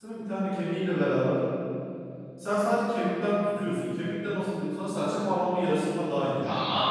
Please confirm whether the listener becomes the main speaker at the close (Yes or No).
Yes